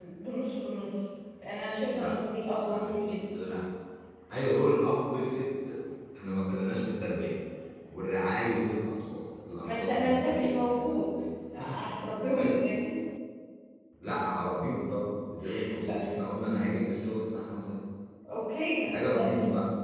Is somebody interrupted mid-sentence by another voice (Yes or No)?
Yes